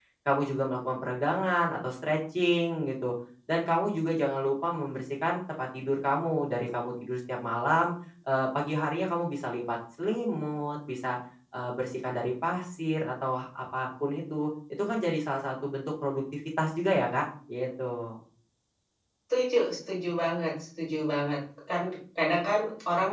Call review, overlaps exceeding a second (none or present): none